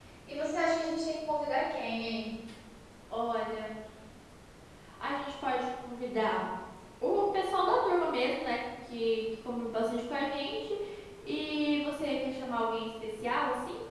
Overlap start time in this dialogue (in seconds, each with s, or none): none